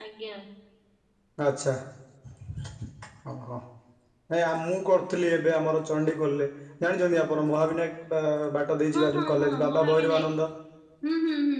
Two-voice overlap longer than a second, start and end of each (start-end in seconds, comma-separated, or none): 8.9-10.2